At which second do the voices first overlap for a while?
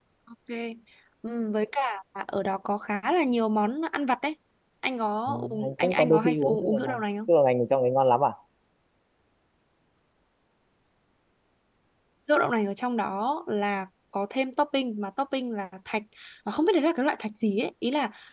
5 s

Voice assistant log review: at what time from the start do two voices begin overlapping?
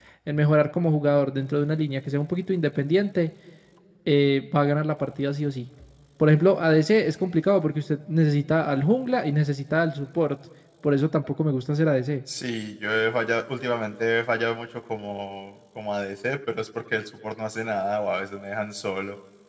none

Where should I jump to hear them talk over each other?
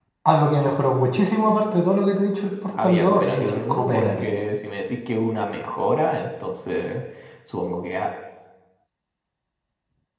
3 s

